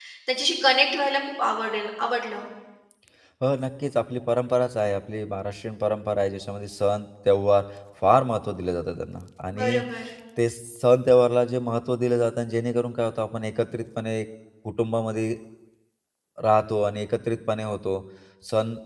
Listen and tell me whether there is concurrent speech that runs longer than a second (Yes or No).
No